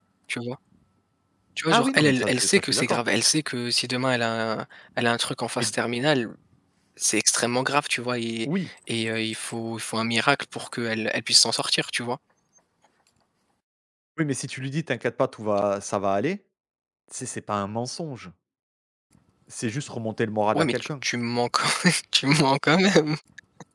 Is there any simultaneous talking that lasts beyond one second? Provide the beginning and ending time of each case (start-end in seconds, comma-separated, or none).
1.7-3.0